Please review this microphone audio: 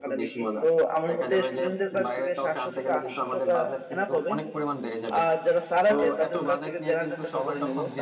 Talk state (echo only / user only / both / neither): both